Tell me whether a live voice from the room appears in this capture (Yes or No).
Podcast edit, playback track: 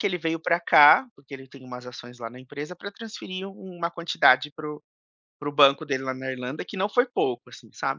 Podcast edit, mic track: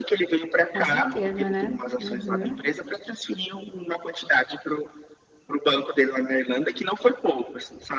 Yes